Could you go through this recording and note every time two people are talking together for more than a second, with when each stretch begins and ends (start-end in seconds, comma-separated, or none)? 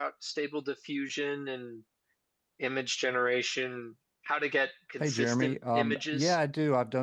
5.0-6.4